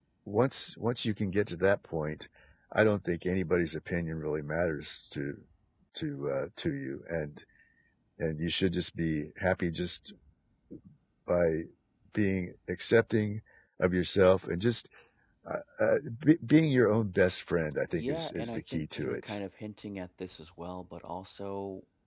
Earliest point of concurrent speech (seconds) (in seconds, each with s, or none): 17.9 s